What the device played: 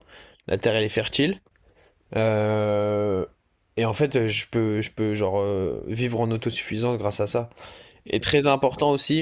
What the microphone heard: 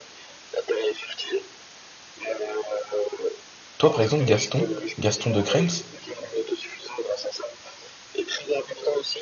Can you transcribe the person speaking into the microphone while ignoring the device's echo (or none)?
toi, par exemple, Gaston, Gaston de Krems,